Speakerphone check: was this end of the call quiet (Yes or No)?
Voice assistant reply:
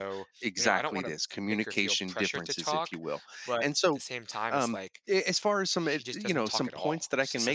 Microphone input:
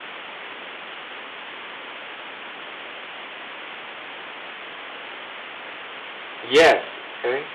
No